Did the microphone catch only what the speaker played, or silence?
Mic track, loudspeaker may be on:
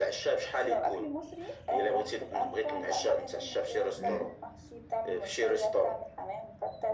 No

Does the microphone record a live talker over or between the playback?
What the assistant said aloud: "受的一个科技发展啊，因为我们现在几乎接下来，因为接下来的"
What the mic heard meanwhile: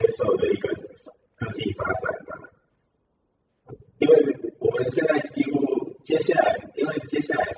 No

